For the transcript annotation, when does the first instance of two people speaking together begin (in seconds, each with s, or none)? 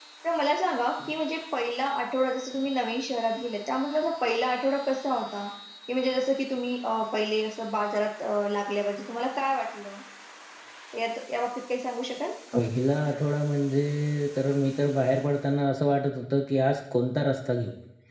none